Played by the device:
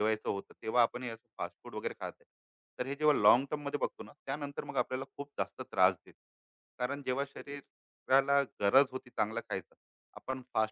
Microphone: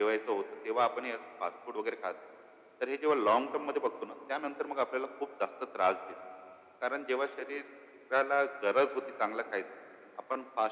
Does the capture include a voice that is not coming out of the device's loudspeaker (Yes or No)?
No